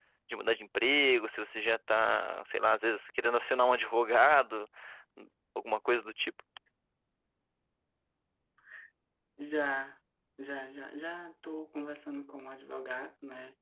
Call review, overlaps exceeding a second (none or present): none